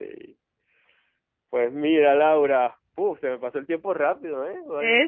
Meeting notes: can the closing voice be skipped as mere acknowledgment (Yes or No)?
Yes